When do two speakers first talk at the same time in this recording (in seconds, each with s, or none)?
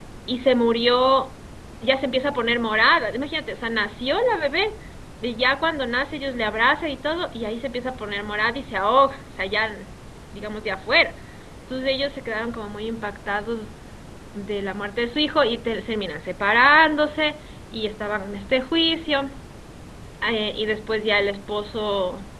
none